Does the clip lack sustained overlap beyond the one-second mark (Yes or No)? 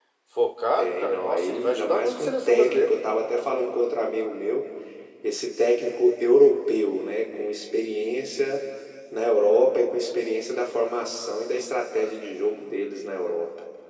No